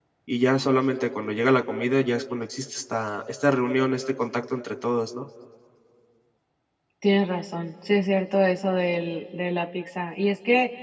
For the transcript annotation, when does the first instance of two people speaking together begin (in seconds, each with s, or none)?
none